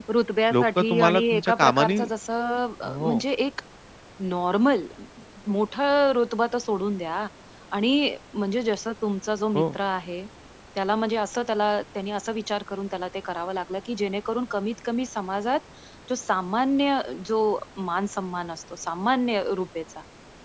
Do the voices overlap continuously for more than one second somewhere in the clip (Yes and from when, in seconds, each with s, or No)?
Yes, from 0.5 s